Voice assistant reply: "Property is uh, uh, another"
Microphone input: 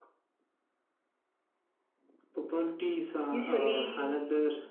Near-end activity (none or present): present